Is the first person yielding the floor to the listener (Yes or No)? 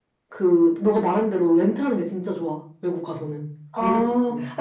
Yes